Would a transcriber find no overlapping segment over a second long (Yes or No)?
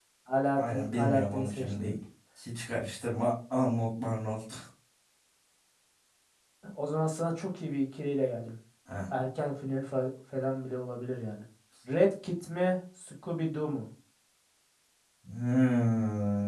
No